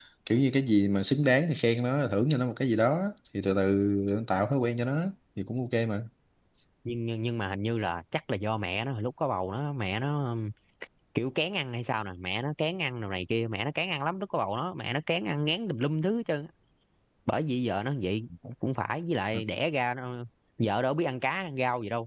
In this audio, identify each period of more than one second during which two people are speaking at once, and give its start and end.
none

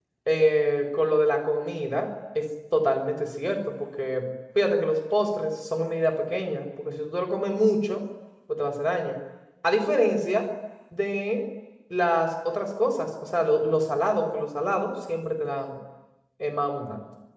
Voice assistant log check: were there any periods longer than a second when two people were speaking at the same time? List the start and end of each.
none

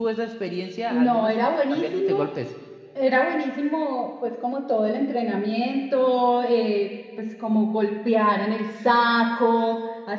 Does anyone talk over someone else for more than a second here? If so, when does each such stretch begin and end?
0.9-2.1

